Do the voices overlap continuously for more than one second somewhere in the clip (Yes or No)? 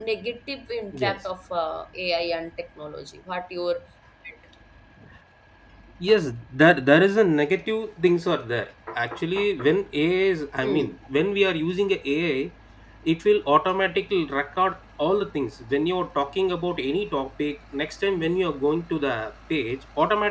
No